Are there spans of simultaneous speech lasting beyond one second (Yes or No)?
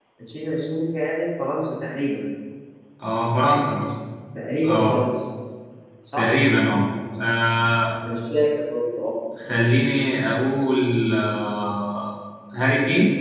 No